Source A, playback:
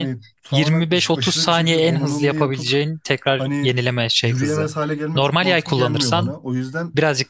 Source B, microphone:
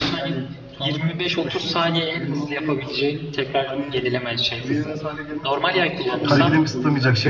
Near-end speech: present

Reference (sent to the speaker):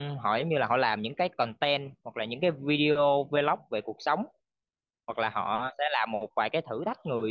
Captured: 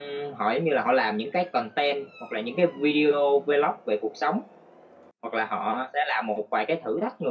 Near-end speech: none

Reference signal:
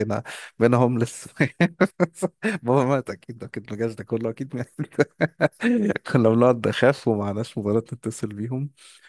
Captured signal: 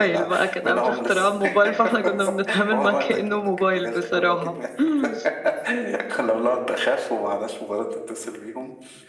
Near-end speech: present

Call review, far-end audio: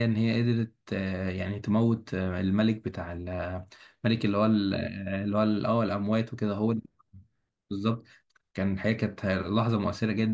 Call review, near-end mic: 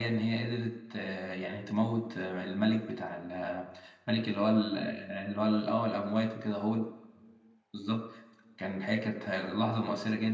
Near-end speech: none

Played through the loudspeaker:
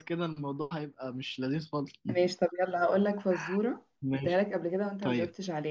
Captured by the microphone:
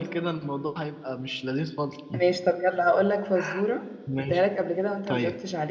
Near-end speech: none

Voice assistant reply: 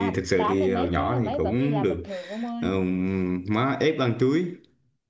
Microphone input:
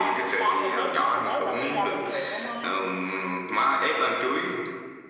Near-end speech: none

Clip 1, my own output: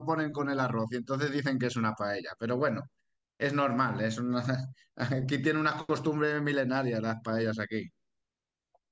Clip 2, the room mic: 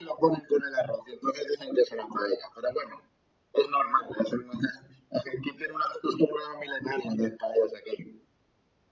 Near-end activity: none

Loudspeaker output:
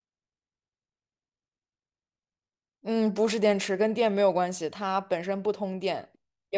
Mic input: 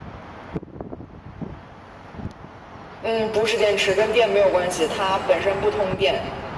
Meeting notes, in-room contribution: none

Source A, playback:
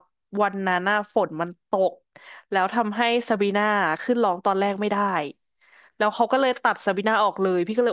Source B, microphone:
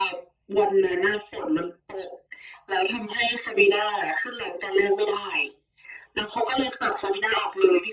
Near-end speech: none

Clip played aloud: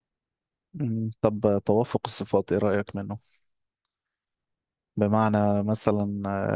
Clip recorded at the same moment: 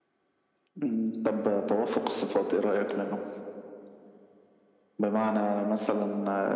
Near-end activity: none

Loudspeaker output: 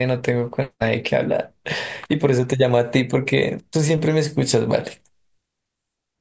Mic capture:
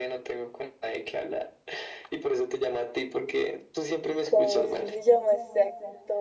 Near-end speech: present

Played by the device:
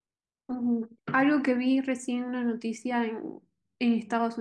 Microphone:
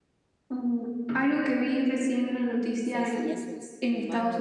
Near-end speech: present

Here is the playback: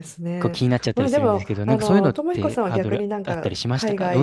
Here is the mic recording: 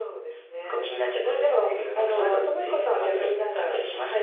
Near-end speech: none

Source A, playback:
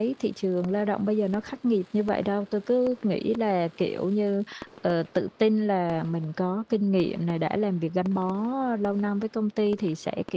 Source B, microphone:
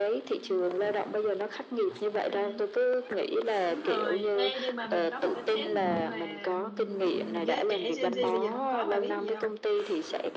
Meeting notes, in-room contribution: present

